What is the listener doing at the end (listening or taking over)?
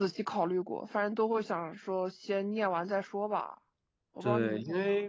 taking over